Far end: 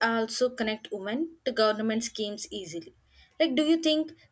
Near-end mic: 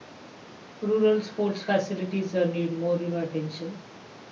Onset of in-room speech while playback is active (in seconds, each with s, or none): 0.8 s